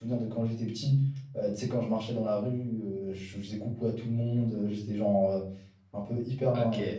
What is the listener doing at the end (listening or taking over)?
listening